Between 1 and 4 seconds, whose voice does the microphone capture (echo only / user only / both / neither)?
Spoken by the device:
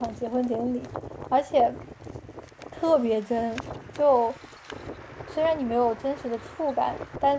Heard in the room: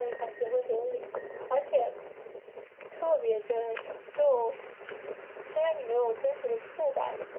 echo only